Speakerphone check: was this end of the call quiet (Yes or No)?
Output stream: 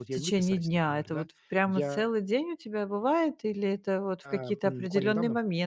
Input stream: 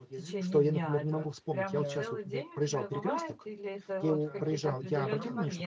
No